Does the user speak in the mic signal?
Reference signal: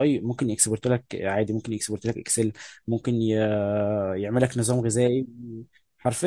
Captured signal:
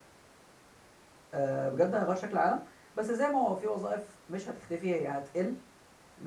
Yes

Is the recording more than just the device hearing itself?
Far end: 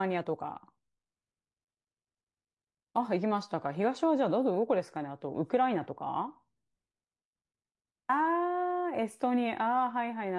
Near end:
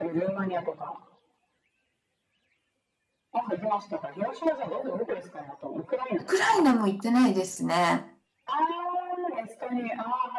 Yes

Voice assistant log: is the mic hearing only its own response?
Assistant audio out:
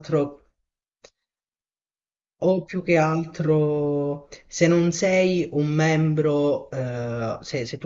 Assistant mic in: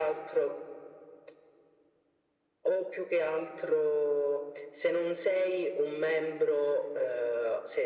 Yes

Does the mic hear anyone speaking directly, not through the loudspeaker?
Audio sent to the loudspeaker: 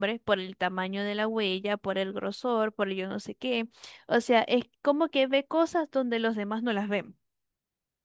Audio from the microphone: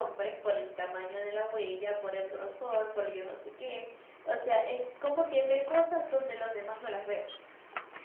No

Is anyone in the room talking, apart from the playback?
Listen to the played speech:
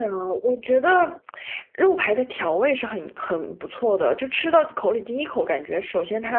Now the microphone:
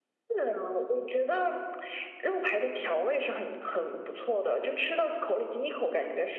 No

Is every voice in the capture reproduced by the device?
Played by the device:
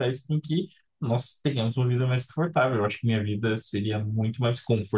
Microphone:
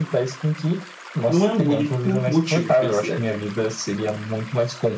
No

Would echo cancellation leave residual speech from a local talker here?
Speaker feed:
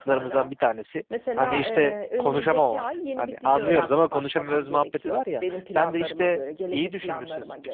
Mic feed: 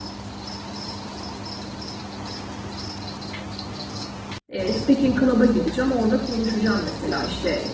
Yes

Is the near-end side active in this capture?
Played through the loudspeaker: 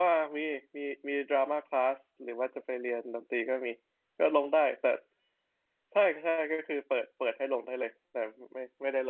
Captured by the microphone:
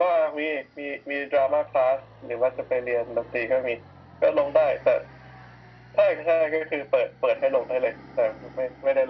No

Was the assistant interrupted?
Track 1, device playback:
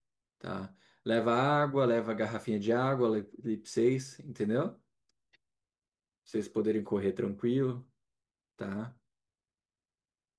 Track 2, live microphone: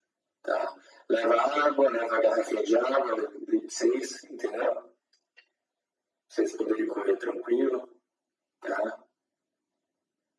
No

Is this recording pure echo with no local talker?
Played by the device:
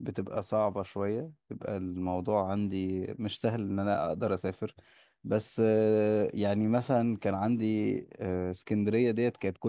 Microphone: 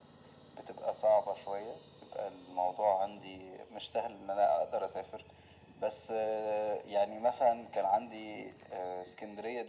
Yes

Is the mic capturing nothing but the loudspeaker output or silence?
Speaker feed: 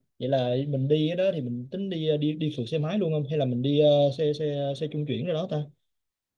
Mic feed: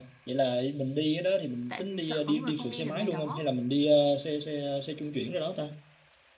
No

